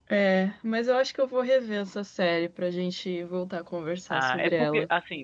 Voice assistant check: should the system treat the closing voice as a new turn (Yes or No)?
Yes